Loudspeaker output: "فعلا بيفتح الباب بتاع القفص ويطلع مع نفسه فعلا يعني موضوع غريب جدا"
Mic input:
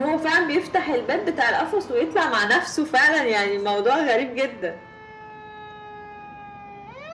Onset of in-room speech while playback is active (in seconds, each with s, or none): none